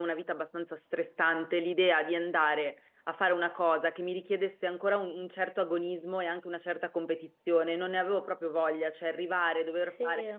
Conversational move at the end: listening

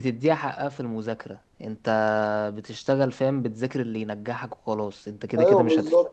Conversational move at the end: taking over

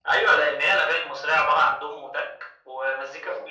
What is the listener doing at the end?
listening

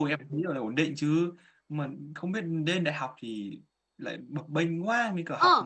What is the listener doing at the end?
taking over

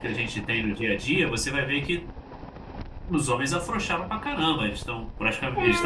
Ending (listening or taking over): taking over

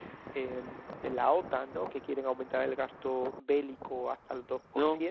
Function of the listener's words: listening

